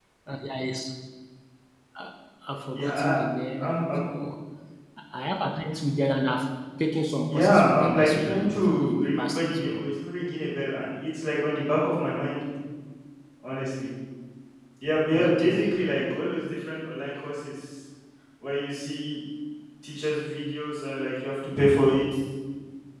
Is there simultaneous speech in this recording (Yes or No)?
Yes